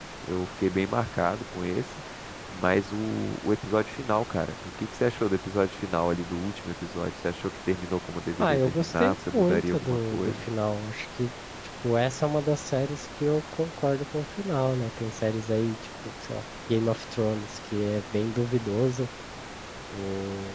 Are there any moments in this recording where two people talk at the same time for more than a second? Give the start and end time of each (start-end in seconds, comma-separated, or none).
8.4-10.4